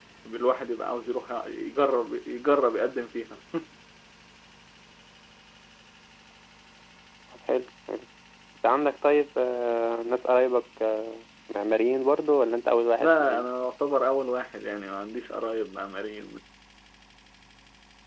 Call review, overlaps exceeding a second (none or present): none